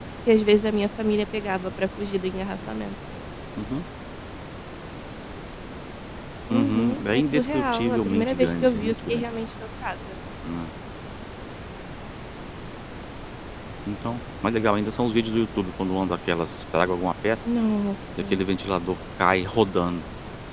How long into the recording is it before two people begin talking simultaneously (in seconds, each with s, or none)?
6.5 s